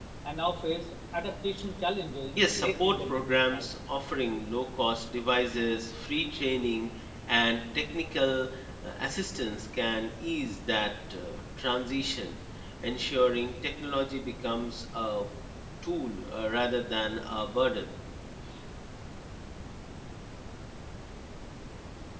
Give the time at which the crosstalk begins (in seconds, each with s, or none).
2.4 s